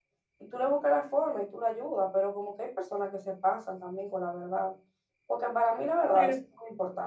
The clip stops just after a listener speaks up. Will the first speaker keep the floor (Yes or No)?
Yes